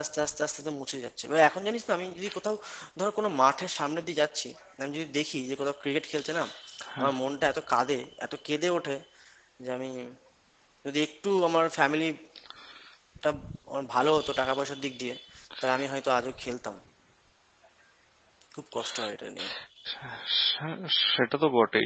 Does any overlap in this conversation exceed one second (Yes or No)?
No